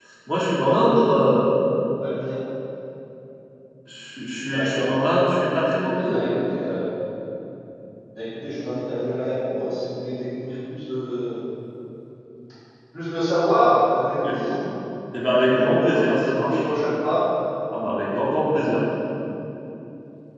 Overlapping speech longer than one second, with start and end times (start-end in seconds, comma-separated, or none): 15.4-16.6